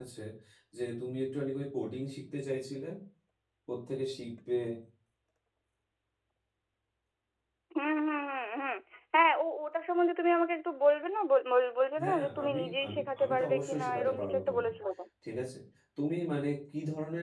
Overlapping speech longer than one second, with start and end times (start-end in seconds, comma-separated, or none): 12.0-14.7